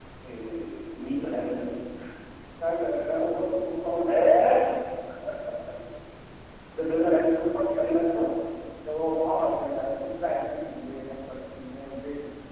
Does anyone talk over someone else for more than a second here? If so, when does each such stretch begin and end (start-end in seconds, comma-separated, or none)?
7.0-8.3